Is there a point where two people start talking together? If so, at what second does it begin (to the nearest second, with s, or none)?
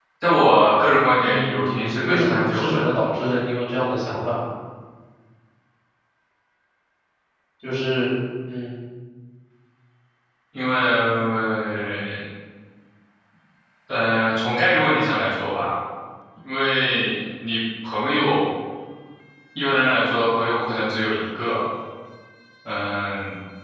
1 s